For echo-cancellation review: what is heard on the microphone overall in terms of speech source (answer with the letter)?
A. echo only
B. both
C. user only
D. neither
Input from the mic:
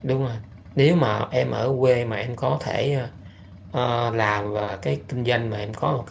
C